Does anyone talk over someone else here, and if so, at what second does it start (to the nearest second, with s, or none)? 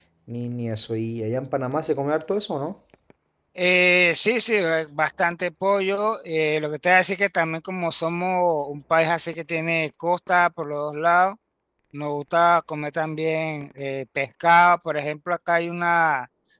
none